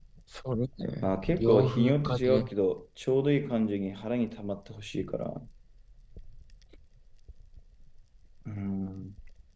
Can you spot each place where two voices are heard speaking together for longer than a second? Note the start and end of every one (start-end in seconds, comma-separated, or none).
1.0-2.5